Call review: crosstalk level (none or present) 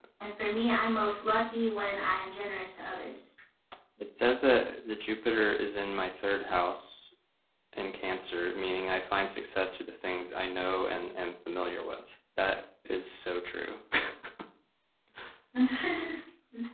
none